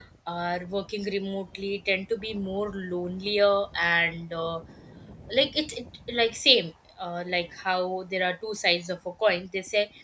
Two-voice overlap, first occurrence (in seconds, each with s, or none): none